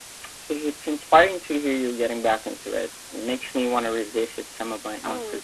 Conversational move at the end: taking over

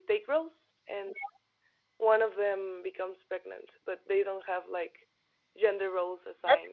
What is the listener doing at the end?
listening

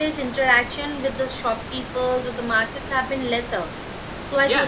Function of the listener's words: taking over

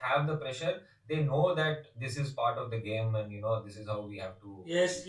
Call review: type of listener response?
taking over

